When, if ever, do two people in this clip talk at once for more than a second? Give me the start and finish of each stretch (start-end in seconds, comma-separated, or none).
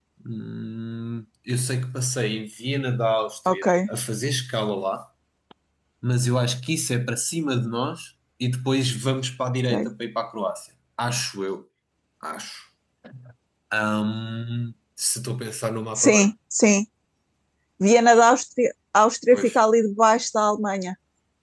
none